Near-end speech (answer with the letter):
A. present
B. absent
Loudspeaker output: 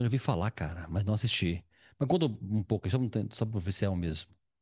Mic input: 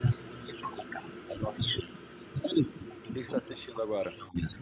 A